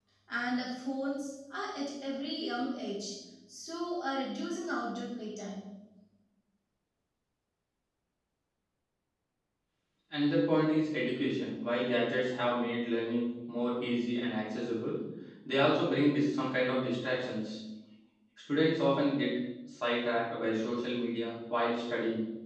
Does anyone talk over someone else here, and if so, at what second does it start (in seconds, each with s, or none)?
none